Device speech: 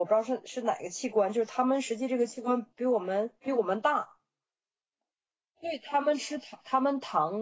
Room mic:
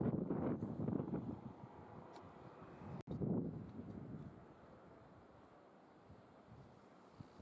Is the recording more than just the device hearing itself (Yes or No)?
No